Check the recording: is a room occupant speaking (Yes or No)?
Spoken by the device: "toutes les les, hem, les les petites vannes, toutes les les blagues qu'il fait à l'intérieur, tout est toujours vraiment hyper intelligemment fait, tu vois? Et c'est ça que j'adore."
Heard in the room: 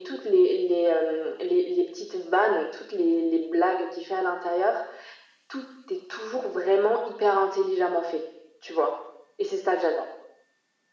No